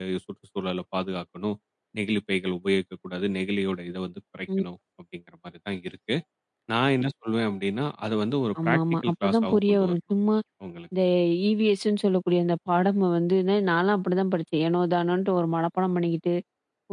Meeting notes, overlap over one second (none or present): present